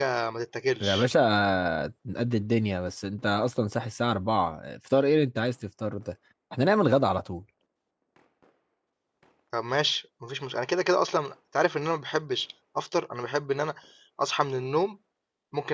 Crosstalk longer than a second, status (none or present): none